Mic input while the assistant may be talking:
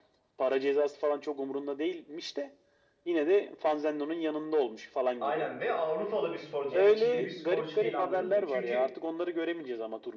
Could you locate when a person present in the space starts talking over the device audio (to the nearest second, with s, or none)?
5 s